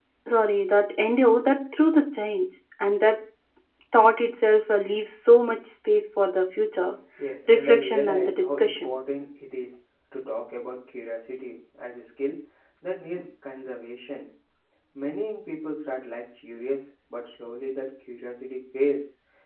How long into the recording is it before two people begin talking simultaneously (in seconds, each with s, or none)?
7.5 s